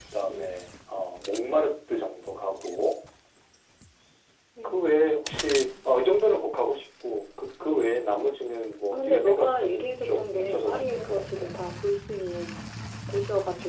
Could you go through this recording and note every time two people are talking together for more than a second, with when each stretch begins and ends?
8.9-11.5

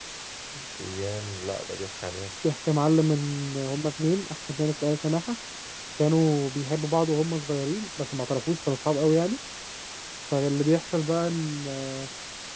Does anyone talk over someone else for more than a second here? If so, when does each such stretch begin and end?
none

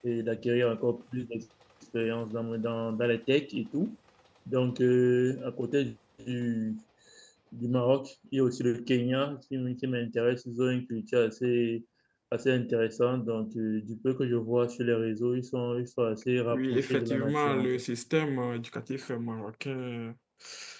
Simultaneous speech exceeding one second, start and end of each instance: 16.5-17.8

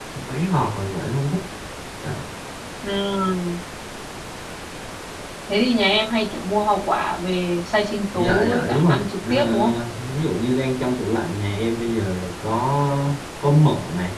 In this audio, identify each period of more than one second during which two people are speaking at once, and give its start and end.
8.2-9.7

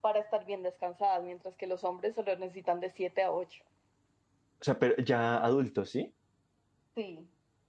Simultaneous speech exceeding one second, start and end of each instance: none

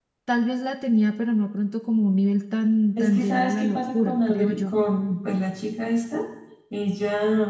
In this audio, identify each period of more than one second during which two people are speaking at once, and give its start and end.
3.0-4.8

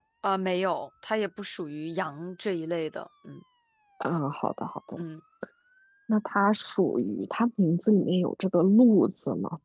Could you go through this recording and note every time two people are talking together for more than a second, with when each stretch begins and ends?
none

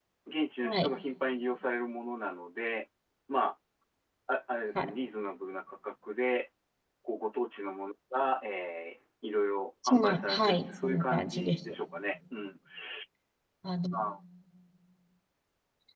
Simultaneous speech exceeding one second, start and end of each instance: 9.9-11.6

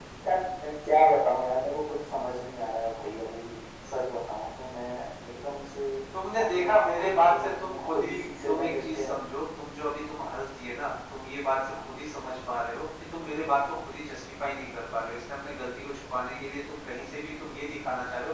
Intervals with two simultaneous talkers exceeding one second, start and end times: 6.4-9.1

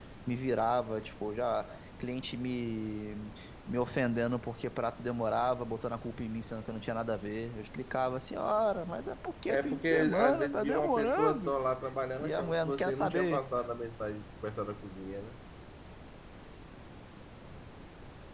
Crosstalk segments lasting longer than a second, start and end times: 9.5-11.5, 12.2-13.4

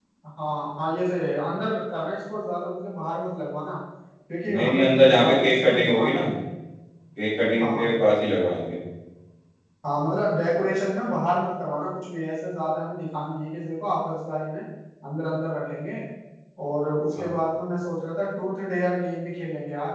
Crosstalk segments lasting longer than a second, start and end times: 4.5-6.2

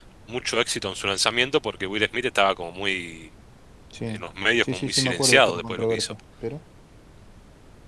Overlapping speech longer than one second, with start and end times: 4.6-6.1

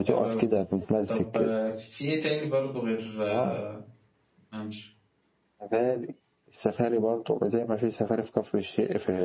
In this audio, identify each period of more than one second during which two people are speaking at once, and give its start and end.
none

